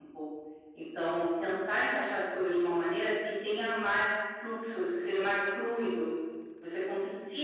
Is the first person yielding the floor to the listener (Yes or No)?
No